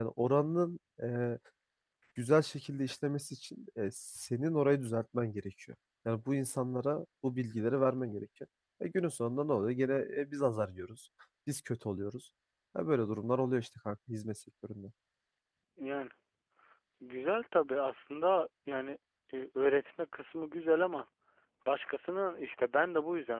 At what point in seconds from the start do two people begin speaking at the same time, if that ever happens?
none

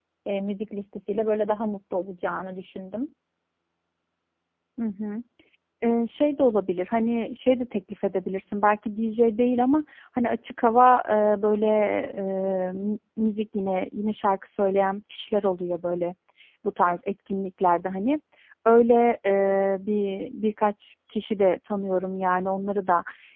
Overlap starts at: none

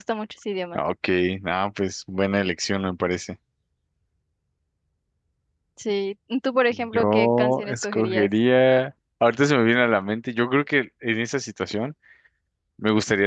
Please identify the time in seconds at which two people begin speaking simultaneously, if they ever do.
6.7 s

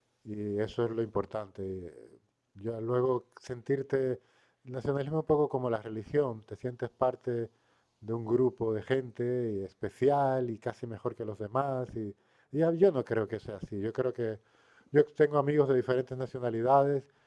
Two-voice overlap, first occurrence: none

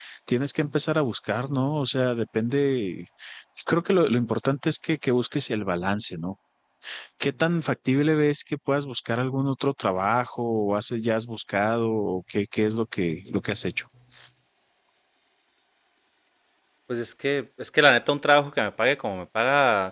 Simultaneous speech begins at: none

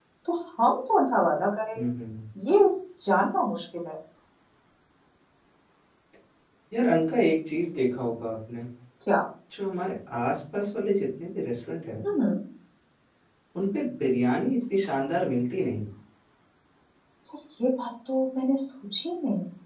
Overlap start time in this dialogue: none

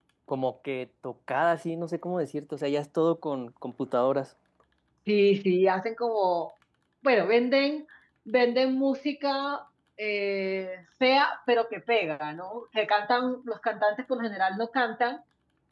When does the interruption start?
none

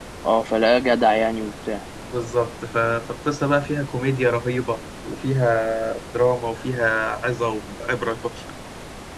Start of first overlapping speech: none

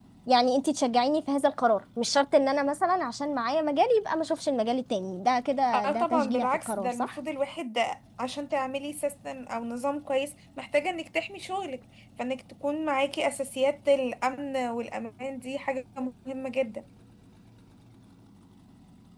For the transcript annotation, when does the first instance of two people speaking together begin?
5.7 s

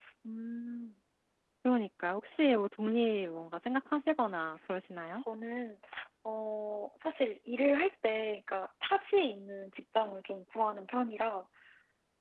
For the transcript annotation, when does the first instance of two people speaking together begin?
none

